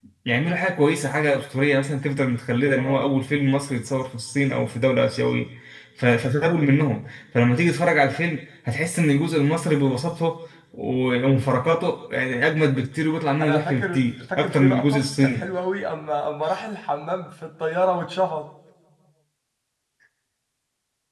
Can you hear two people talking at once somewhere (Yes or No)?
Yes